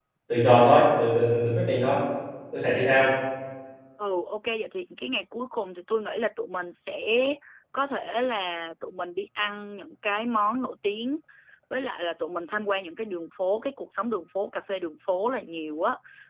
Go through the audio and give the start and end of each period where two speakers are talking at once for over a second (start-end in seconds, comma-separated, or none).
none